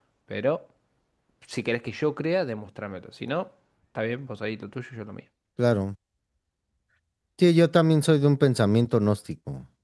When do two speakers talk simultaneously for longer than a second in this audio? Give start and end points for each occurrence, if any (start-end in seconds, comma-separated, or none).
none